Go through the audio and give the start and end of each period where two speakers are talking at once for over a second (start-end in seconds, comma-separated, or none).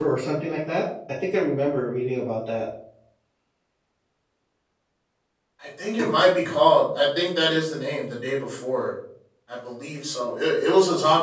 none